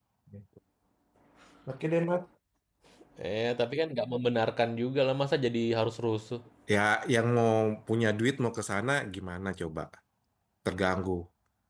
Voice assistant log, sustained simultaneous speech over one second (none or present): none